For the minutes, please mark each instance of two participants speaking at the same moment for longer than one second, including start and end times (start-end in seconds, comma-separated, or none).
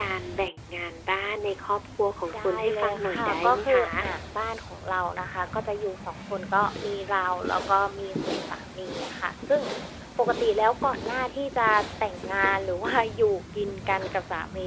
2.4-3.9